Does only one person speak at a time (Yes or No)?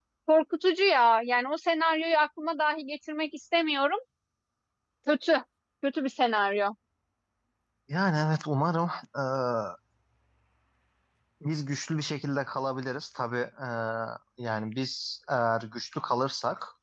Yes